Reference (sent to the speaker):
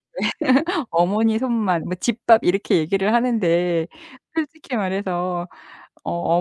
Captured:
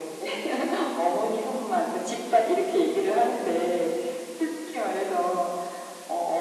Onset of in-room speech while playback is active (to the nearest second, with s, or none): none